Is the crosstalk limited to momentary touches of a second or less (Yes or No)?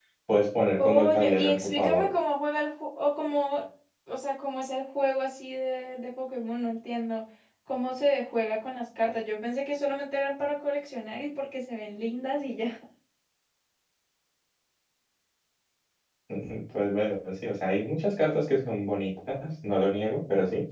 No